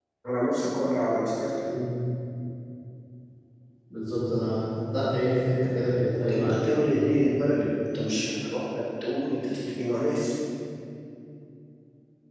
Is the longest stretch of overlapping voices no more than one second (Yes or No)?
Yes